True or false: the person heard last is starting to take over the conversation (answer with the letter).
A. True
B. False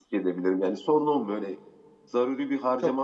A